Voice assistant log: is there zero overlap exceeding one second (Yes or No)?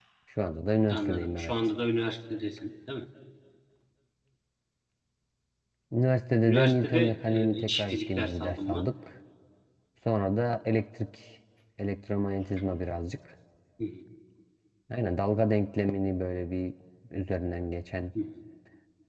No